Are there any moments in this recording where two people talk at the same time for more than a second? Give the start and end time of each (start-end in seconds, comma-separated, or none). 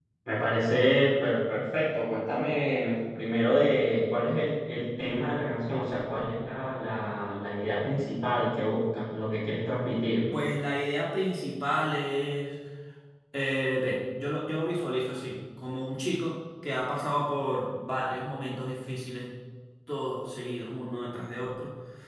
none